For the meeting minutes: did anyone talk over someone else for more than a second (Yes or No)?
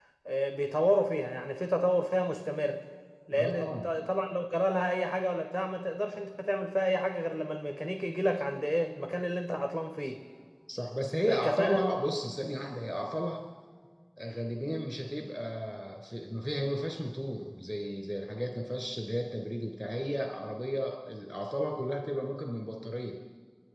No